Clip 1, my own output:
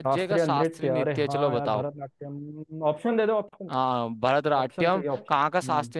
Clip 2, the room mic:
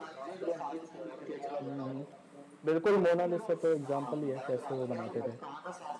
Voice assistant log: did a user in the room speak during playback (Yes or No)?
Yes